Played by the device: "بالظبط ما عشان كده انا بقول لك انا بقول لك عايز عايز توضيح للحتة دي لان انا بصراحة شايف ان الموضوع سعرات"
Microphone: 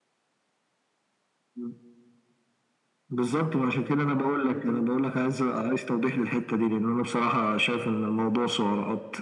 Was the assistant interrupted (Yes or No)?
No